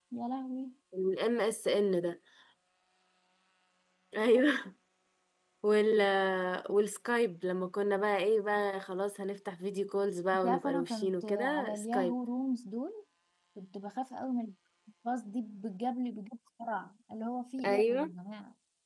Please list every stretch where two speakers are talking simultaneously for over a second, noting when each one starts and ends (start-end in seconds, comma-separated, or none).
10.4-12.1